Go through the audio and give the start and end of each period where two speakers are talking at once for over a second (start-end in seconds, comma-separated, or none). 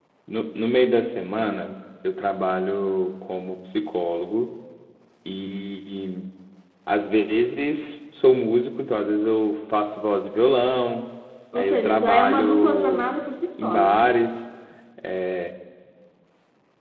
11.6-13.1